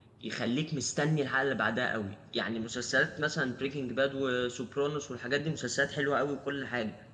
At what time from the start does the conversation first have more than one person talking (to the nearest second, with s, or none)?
none